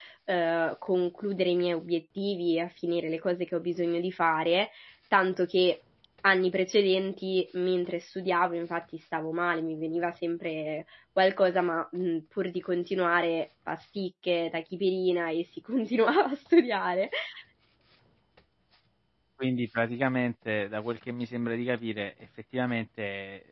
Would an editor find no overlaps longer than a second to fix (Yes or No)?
Yes